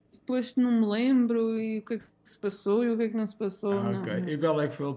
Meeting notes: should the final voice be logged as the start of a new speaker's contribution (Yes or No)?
Yes